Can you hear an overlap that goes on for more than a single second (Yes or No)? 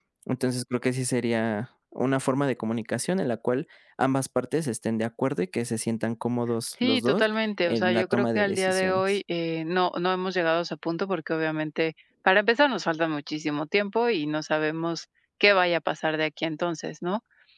Yes